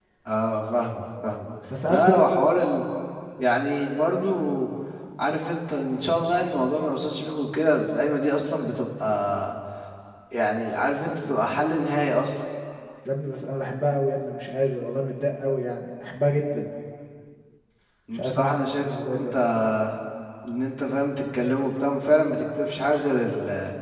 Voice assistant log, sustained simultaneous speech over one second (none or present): present